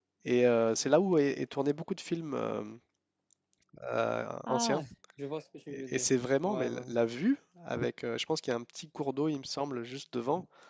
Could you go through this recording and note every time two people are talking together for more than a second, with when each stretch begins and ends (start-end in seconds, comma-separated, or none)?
none